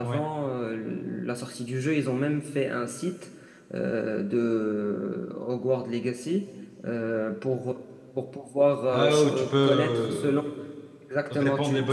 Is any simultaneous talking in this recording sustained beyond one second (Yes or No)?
Yes